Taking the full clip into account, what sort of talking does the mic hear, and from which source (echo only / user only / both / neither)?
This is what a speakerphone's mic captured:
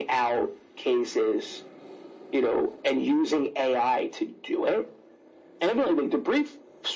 echo only